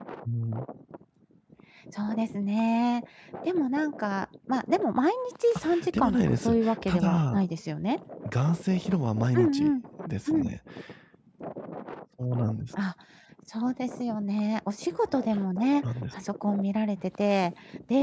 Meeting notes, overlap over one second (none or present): present